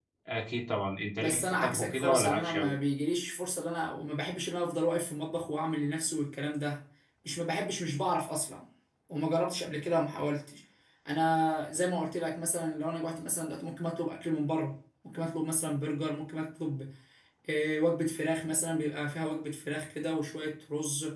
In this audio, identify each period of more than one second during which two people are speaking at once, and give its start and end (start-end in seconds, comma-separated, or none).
1.2-2.7